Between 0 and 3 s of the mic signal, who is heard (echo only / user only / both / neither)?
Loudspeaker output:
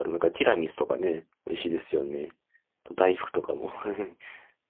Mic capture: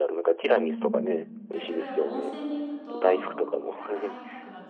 both